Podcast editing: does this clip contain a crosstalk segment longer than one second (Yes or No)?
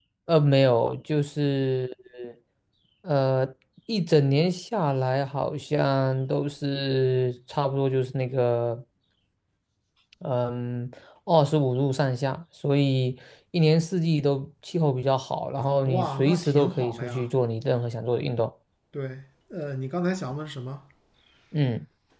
Yes